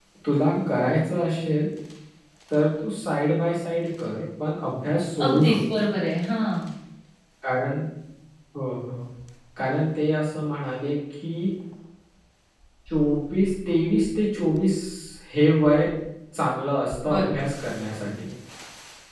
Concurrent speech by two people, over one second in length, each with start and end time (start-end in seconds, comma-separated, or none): none